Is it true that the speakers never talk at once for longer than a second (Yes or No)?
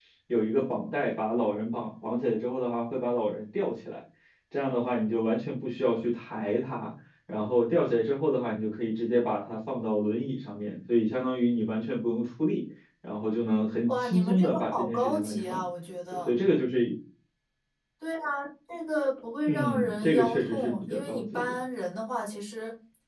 No